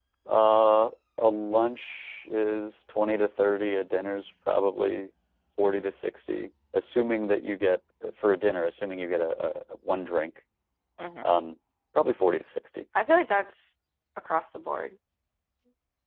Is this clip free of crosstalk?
Yes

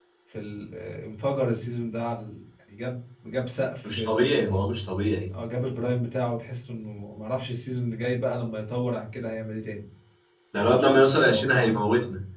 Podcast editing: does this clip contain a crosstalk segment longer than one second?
Yes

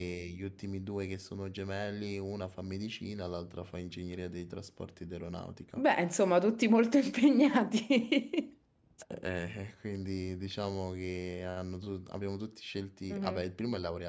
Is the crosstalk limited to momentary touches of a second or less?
Yes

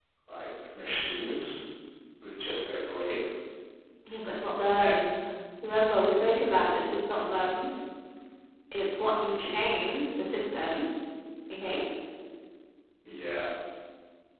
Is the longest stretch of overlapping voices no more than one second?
Yes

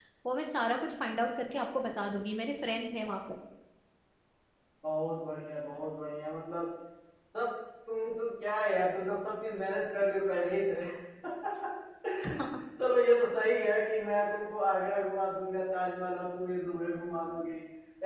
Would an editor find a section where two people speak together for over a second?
No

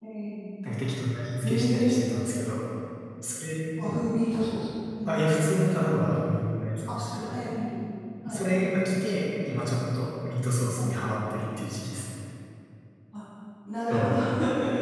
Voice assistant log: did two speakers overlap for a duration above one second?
No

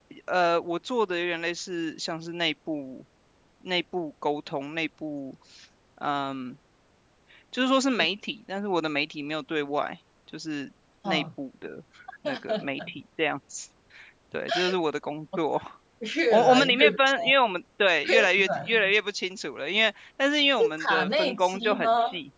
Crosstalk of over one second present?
Yes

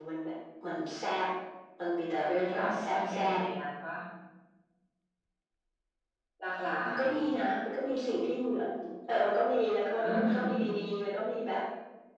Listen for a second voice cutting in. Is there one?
Yes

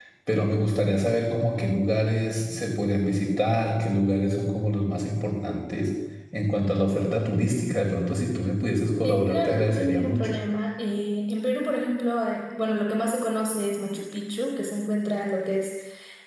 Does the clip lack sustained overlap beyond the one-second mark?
No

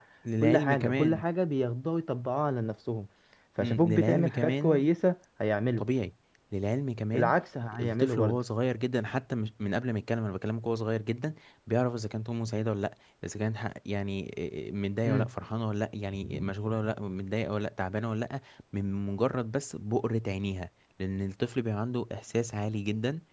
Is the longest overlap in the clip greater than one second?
Yes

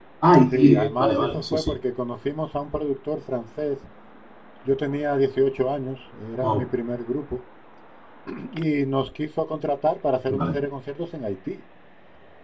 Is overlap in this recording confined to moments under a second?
No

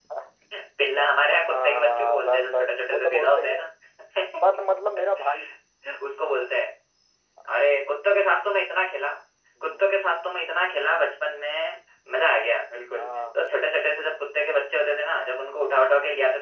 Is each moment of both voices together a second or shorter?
No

